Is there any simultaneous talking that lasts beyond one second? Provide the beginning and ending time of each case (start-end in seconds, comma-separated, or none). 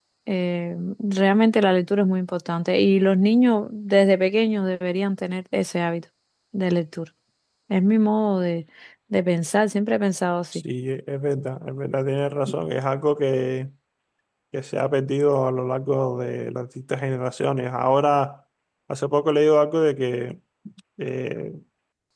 none